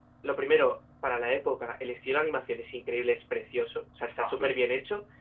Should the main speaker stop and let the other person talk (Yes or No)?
No